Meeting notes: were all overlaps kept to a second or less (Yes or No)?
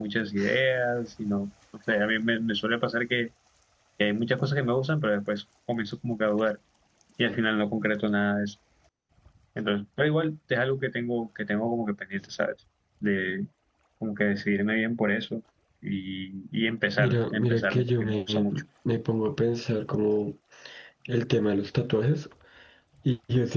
No